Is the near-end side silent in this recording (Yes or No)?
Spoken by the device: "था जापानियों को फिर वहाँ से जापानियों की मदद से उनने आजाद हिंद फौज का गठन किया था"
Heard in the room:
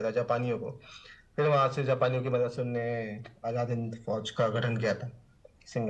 Yes